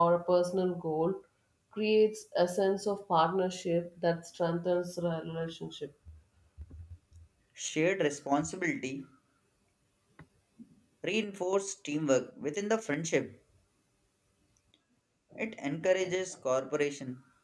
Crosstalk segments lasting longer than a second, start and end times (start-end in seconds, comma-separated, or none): none